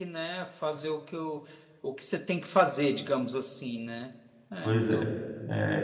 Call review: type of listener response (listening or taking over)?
taking over